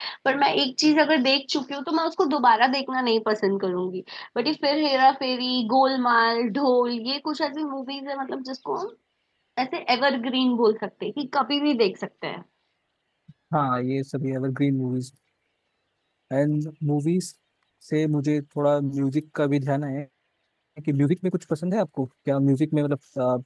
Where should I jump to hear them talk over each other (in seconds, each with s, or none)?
none